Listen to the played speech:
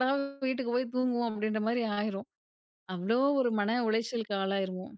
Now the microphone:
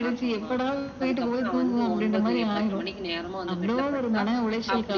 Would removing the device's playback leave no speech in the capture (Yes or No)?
No